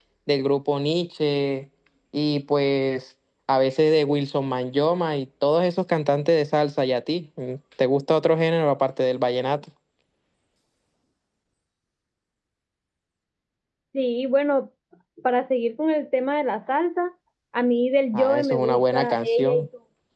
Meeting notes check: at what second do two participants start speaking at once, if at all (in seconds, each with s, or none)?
18.1 s